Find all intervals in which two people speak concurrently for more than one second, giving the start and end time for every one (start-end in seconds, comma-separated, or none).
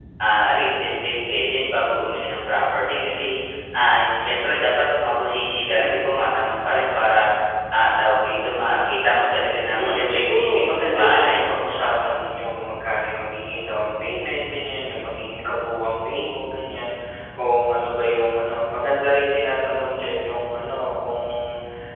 9.8-11.4